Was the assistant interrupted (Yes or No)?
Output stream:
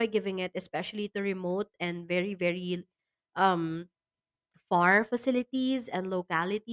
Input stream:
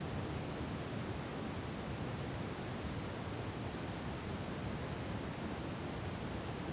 No